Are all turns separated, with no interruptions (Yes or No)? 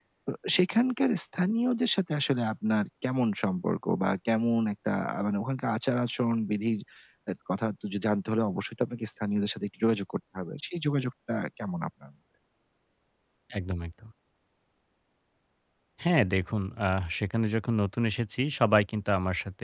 Yes